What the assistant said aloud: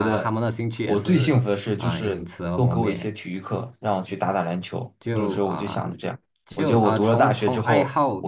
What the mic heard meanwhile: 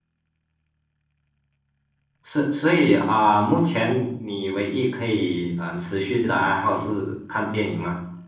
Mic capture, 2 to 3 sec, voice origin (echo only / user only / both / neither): user only